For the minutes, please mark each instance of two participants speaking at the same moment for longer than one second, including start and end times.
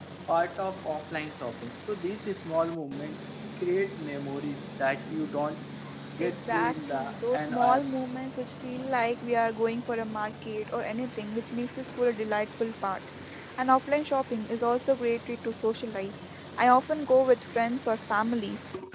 6.2-7.9

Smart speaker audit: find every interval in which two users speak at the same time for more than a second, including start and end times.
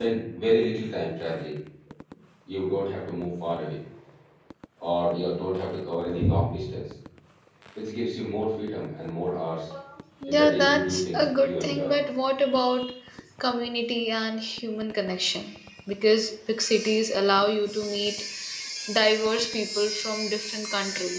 10.3-11.9

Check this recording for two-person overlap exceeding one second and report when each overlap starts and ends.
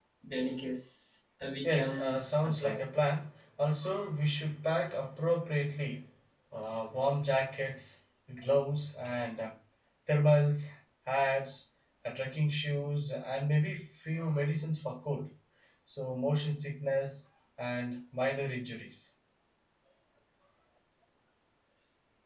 1.6-2.9

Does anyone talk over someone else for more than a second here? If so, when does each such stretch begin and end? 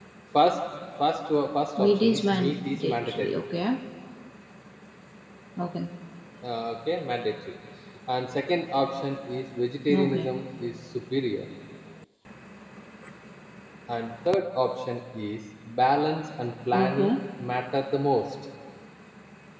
1.8-3.3

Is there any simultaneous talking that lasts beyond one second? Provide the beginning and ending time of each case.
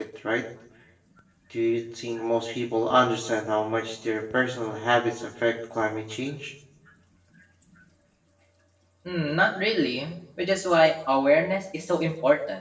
none

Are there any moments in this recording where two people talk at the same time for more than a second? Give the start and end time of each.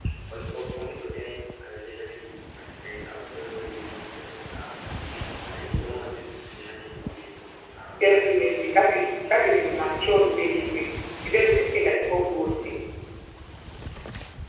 8.0-10.7

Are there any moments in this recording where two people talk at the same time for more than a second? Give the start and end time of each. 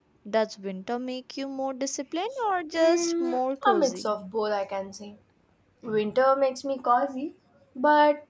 2.7-4.1

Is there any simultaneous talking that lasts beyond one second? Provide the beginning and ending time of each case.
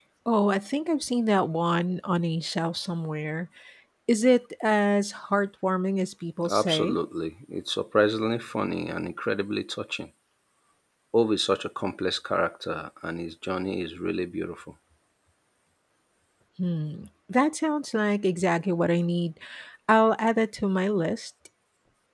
none

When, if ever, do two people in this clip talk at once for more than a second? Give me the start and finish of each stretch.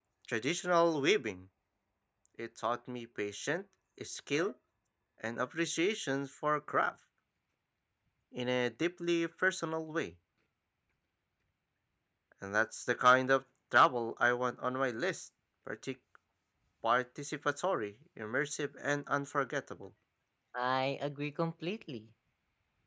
none

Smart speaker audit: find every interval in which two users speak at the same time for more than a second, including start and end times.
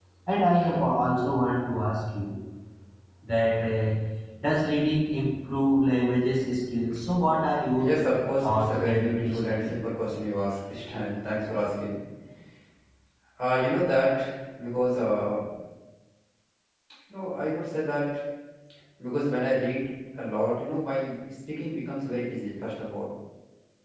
8.4-9.7

